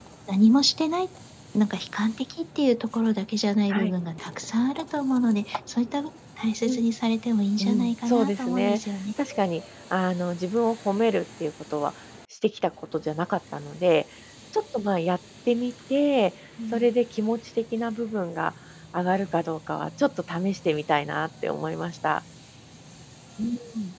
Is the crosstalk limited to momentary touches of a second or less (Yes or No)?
No